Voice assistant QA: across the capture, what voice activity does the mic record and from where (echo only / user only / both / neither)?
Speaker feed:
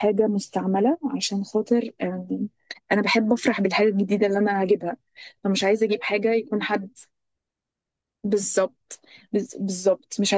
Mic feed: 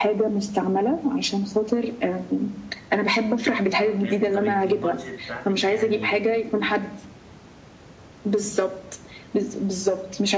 both